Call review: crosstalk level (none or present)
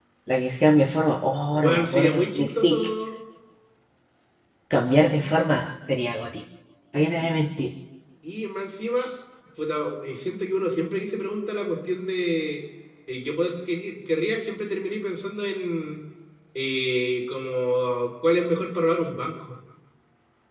present